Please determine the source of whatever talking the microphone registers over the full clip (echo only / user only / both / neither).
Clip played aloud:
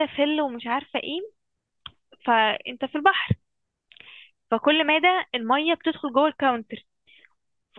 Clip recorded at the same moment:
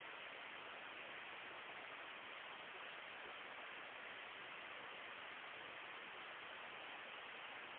neither